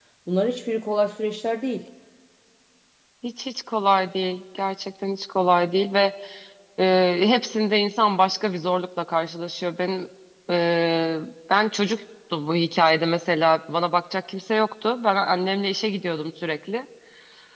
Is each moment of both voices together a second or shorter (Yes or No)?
Yes